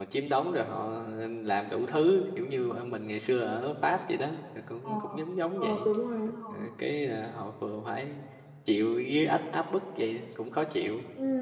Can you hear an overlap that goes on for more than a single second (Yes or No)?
No